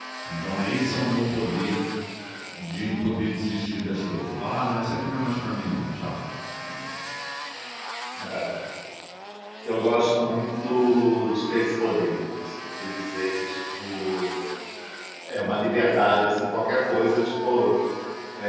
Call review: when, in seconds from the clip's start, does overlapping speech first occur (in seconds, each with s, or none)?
none